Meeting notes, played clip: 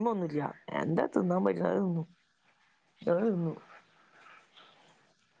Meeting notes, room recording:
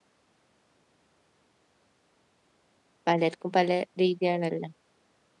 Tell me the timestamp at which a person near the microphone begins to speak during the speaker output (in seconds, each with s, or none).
3.1 s